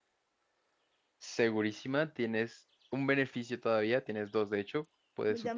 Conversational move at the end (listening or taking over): taking over